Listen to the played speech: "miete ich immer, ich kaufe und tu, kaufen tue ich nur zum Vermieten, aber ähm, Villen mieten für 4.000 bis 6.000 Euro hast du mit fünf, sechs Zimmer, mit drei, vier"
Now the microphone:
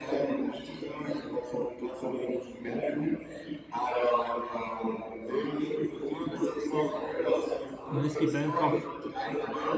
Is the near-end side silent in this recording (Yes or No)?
No